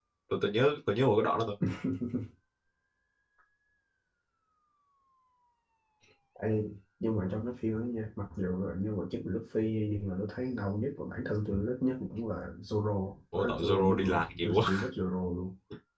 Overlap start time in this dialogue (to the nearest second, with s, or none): 13 s